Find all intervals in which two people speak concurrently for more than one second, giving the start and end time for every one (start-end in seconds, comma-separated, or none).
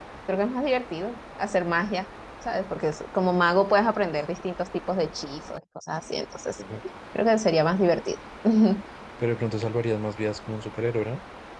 none